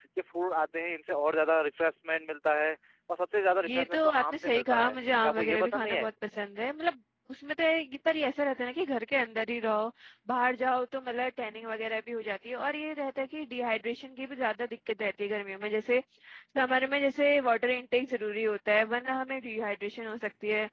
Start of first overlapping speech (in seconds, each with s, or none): 3.6 s